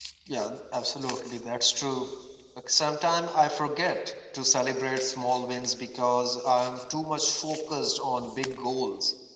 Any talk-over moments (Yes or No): No